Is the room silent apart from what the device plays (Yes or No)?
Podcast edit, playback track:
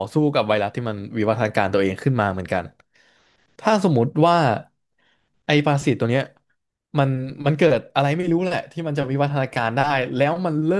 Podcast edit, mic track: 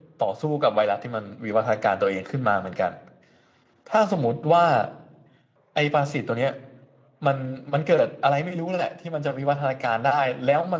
Yes